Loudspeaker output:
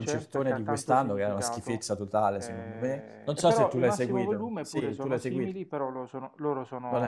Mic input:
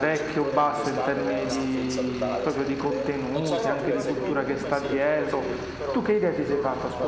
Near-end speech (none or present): present